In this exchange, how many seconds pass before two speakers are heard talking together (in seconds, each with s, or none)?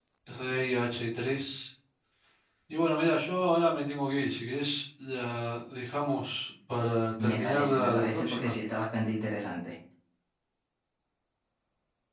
7.2 s